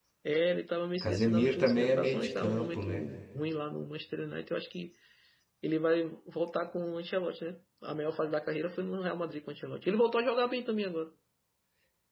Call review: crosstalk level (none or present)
present